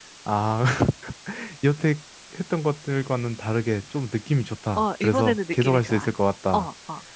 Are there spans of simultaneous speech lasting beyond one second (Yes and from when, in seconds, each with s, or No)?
Yes, from 4.8 s